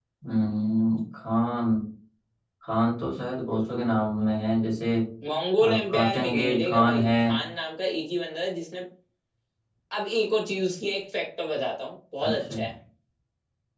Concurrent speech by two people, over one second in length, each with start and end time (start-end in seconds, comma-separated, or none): 5.7-7.1